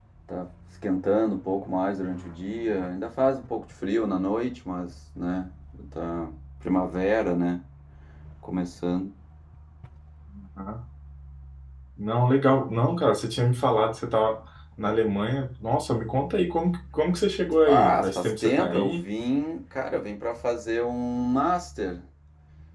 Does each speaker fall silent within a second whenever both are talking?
No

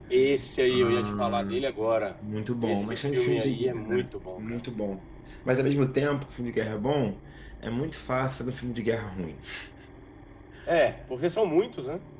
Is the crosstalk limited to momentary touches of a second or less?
No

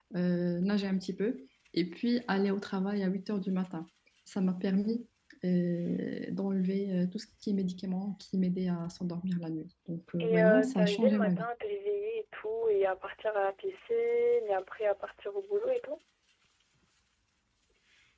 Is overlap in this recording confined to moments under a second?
No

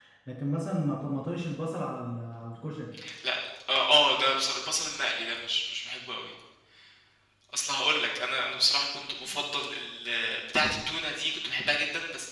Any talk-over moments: No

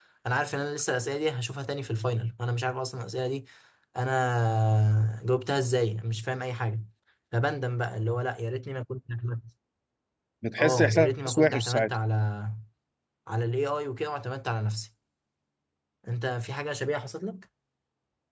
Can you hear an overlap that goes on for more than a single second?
Yes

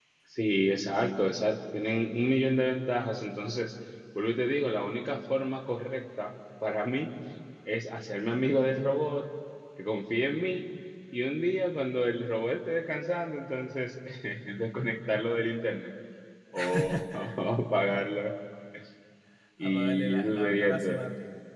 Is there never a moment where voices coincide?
No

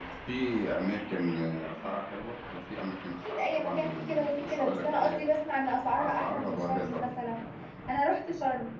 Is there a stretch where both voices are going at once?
Yes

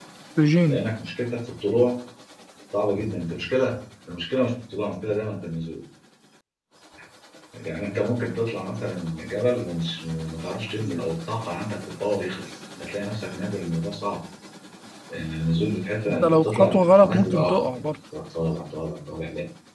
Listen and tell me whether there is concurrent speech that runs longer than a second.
Yes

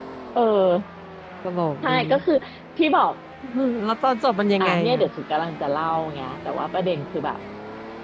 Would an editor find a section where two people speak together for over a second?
No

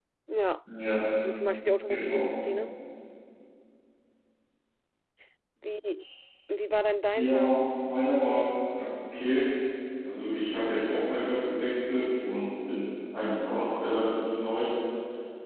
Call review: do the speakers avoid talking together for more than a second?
Yes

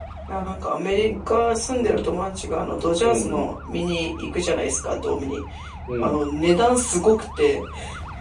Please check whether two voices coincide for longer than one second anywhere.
No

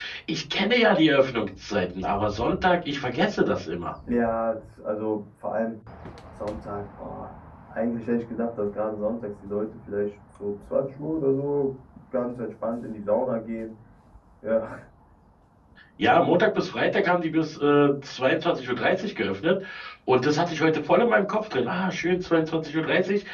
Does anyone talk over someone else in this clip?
No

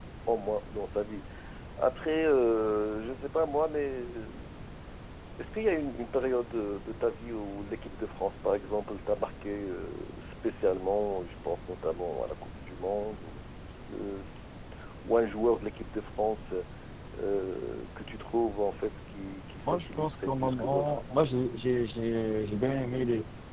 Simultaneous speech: Yes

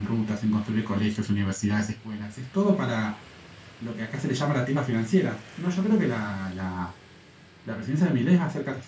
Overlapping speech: No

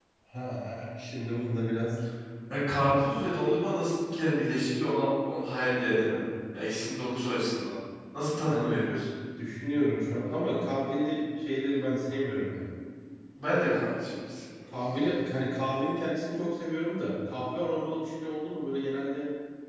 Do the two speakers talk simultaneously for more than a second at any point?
No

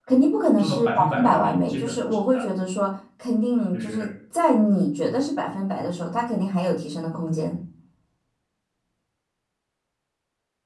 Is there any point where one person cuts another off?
Yes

